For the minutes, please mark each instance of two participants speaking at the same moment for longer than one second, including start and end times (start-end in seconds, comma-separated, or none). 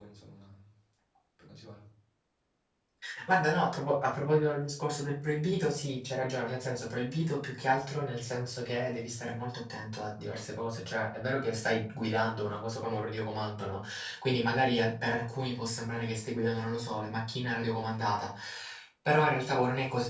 none